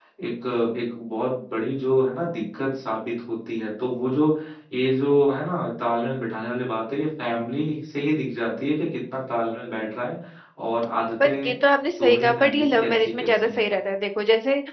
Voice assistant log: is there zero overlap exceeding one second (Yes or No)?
No